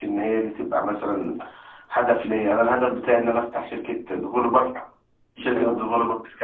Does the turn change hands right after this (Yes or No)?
No